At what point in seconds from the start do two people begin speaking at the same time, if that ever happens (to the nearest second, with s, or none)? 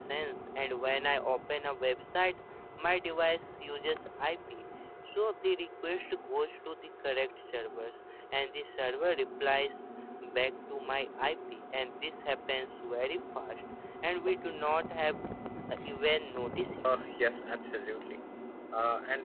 none